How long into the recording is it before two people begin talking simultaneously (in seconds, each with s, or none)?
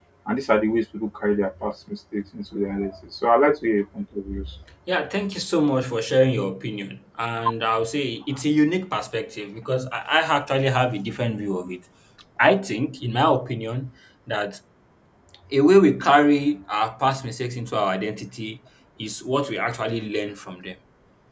none